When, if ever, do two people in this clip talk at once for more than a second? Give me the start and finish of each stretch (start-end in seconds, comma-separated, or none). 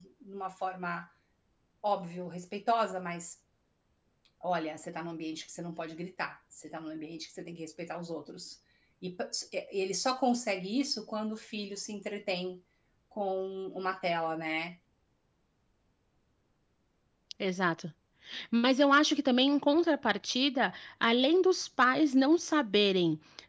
none